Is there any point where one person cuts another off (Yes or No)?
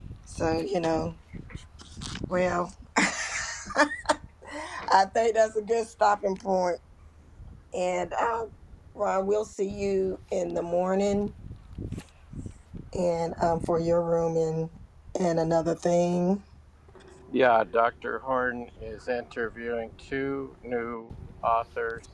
No